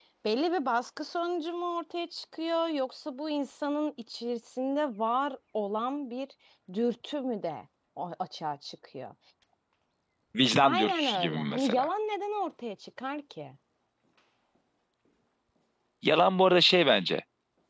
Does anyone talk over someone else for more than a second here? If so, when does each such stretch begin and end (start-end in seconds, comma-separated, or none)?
10.6-11.9